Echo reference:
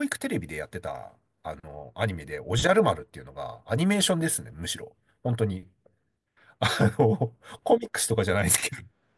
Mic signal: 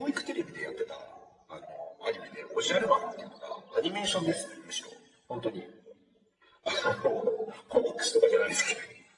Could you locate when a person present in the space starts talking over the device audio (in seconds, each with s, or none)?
none